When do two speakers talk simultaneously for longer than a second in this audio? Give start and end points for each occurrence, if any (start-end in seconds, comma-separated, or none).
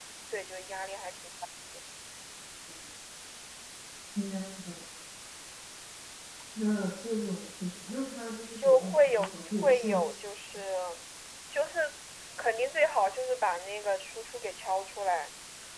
8.6-10.2